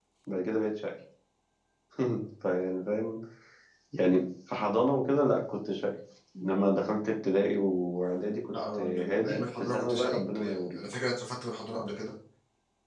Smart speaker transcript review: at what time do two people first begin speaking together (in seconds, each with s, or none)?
8.5 s